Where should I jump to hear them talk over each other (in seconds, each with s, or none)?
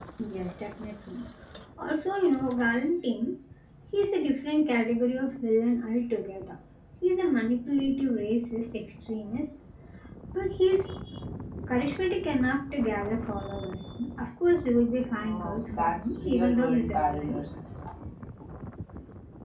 15.2 s